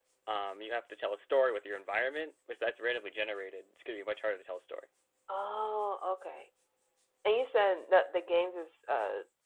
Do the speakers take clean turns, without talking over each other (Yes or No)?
Yes